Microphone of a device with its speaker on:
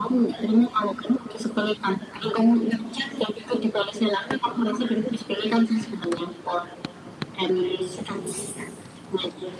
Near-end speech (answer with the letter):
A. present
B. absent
B